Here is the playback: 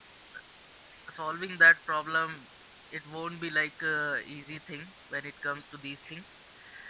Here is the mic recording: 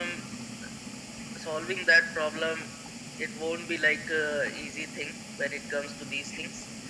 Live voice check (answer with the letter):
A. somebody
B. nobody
B